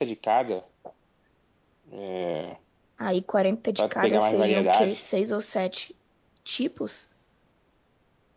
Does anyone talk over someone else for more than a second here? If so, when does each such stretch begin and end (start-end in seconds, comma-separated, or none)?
3.8-5.0